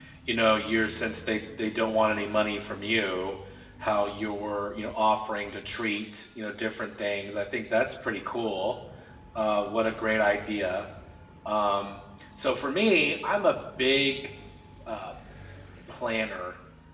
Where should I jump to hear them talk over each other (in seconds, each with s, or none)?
none